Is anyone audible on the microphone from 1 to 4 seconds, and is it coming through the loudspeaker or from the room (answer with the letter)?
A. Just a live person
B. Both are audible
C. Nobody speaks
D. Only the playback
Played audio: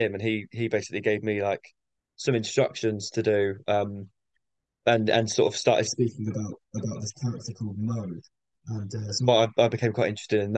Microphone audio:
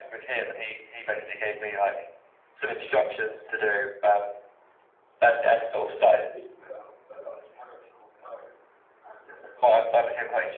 D